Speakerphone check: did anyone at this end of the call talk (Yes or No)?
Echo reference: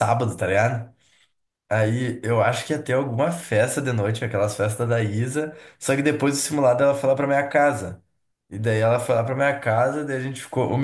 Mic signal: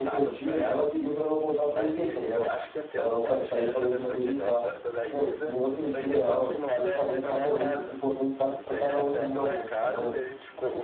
Yes